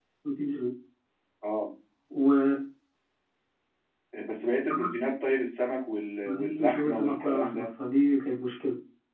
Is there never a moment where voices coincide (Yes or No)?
No